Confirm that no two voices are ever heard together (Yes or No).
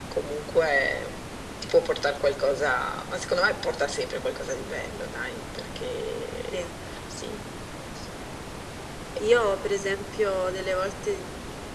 Yes